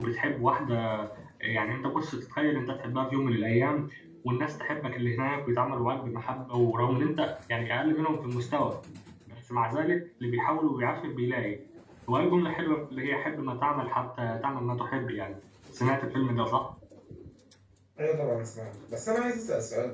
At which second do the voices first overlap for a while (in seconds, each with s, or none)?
none